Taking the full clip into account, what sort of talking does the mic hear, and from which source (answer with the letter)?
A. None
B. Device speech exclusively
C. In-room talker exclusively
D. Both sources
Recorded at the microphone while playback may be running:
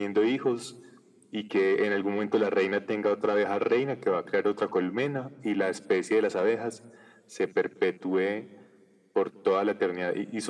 B